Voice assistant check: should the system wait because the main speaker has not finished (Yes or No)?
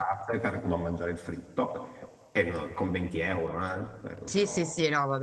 No